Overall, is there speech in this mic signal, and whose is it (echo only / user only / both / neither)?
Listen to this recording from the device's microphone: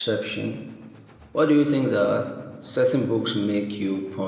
user only